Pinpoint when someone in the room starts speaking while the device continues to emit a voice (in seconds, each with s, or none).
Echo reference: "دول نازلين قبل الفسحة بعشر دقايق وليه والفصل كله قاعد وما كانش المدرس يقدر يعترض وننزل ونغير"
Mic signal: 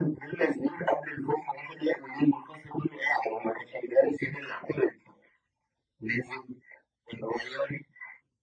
none